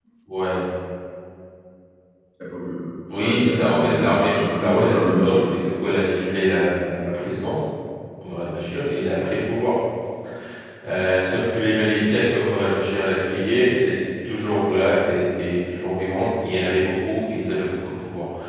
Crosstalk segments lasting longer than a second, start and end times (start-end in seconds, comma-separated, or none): 3.2-5.5